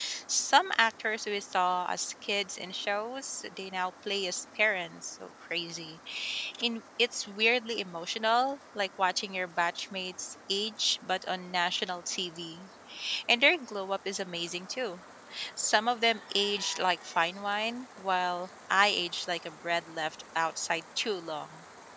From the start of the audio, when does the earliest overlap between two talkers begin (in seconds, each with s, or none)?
none